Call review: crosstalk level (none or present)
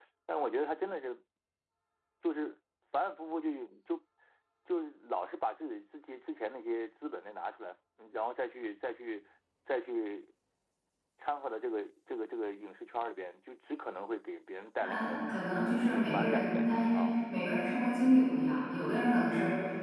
present